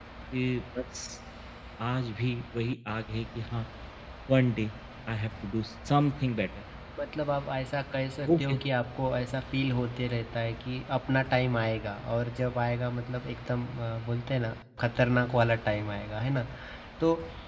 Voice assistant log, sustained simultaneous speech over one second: none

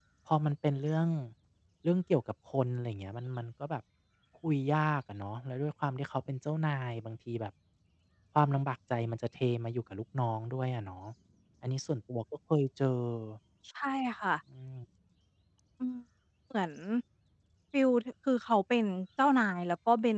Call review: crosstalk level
none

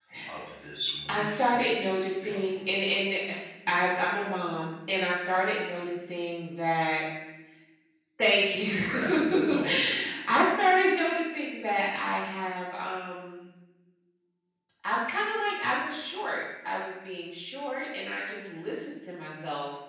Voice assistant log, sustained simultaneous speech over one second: present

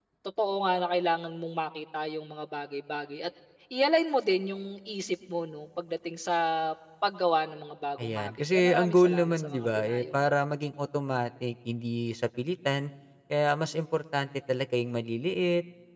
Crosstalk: present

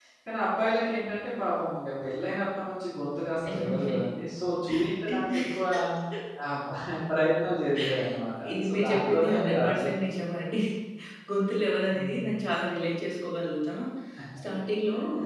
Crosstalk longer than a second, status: present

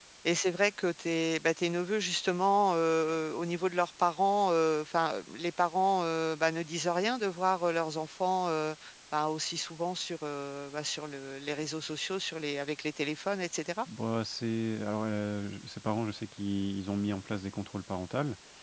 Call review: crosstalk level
none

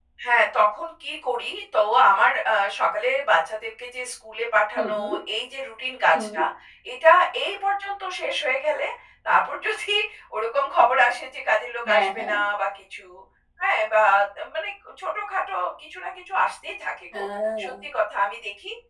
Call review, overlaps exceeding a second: none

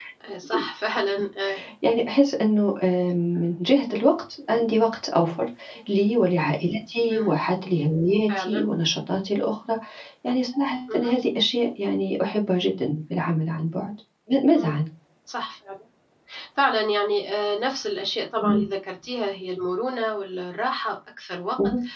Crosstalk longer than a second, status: none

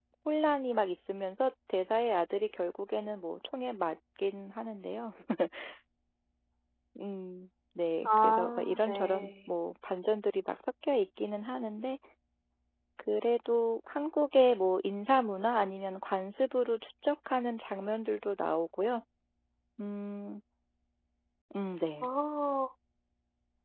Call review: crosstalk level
present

